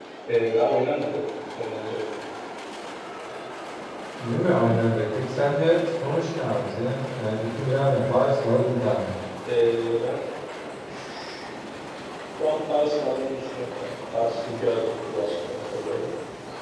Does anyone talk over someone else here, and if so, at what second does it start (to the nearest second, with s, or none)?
none